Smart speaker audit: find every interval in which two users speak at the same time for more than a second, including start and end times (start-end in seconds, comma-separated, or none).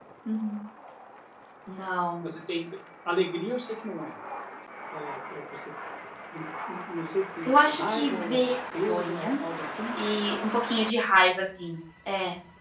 7.5-9.3